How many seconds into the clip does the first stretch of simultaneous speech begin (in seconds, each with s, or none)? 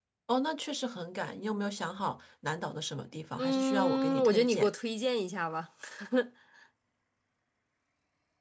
3.4 s